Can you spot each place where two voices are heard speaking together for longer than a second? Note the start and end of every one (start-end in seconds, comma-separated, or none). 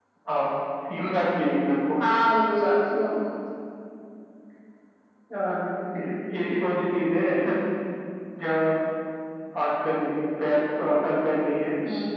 none